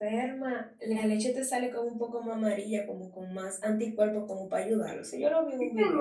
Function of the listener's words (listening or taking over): taking over